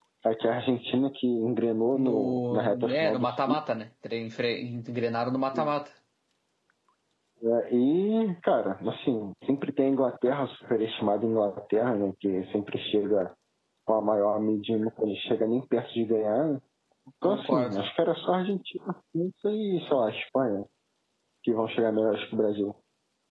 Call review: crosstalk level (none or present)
present